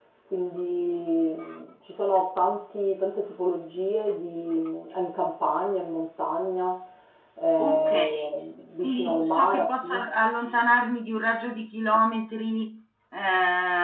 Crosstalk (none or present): present